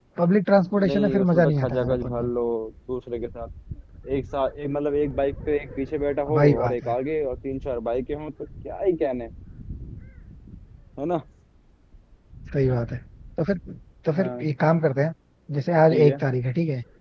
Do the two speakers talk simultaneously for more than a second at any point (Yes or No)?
Yes